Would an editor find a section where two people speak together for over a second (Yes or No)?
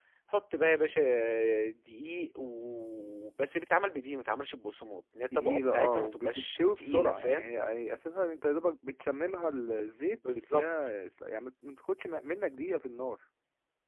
Yes